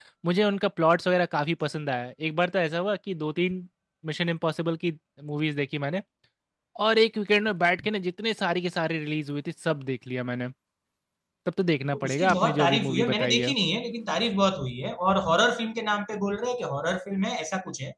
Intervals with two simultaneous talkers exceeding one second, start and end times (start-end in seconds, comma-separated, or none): 11.9-13.5